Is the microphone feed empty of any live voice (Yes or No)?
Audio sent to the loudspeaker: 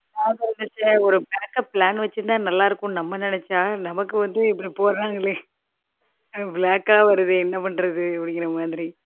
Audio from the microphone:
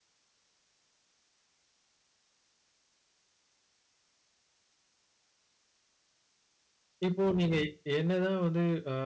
No